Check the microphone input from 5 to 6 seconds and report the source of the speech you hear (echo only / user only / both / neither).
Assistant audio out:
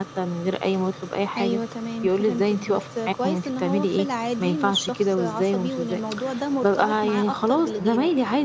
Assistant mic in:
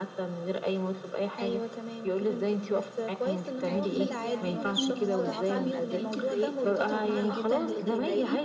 both